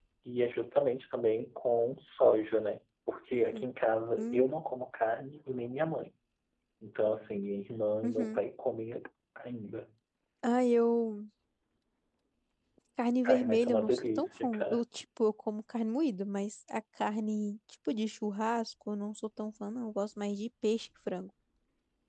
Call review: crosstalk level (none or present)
present